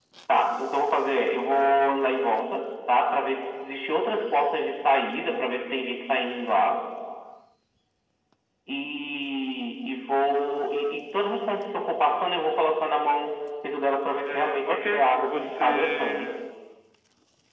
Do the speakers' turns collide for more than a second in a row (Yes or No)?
Yes